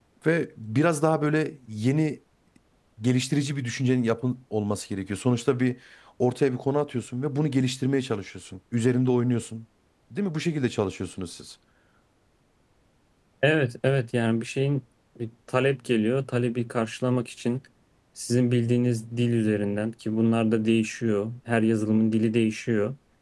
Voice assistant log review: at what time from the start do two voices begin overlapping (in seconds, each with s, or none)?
none